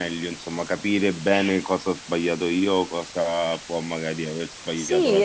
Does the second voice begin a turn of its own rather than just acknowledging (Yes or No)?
Yes